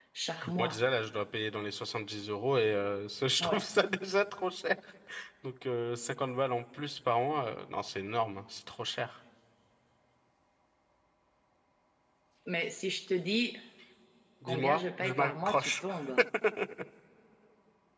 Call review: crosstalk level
present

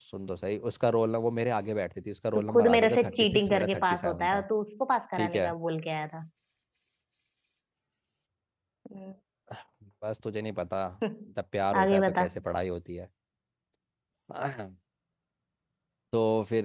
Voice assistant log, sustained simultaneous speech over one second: present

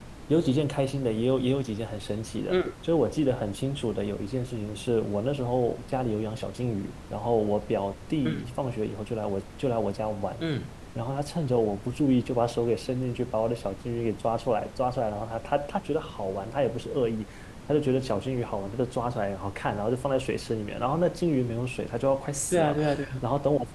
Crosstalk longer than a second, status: none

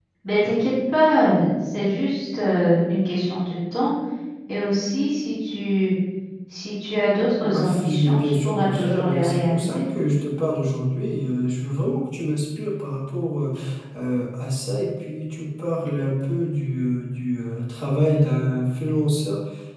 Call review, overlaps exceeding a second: present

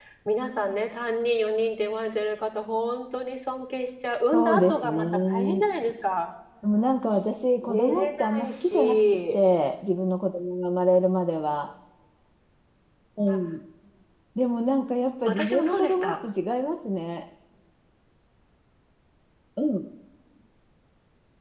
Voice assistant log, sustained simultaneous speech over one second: present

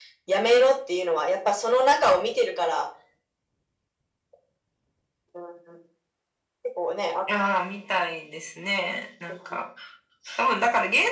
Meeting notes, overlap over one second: none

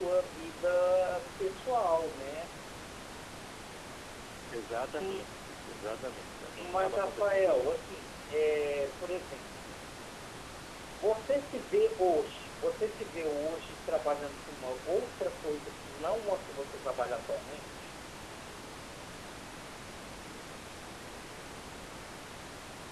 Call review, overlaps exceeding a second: present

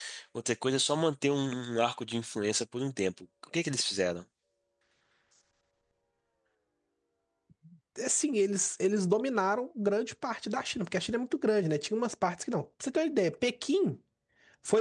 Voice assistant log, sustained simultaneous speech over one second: none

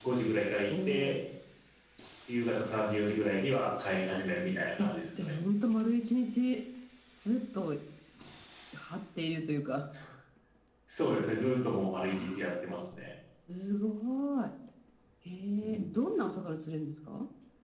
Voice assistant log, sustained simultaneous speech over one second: none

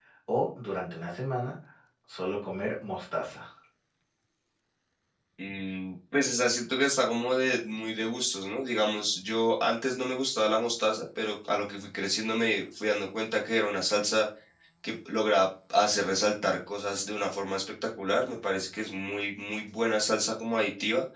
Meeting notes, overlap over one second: none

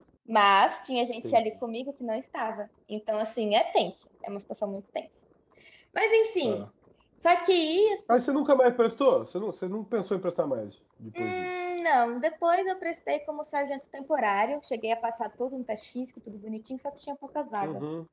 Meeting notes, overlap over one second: none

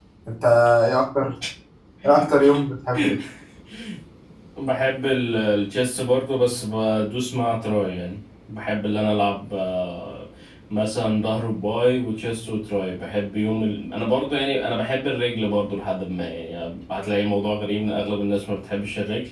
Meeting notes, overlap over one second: none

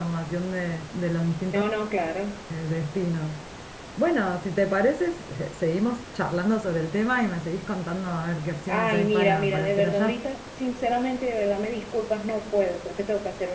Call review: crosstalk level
present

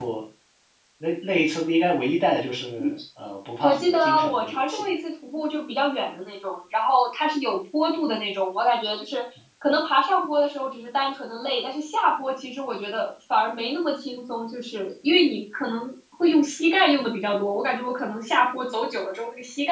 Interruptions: present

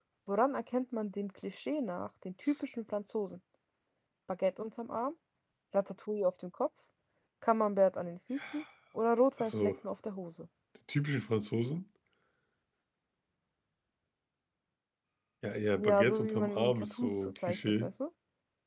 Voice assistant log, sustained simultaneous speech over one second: present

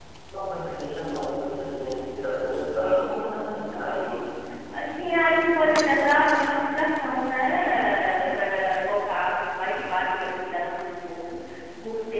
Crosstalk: none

